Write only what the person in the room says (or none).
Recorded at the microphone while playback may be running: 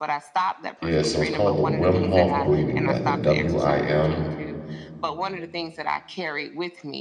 Yeah, so it's called the Wim Hof breathing method, W I M